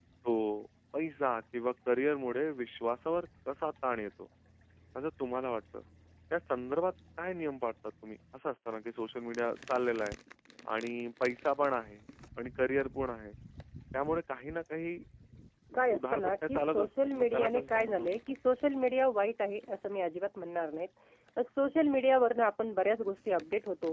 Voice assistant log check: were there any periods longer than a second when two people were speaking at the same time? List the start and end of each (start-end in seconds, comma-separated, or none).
15.9-18.3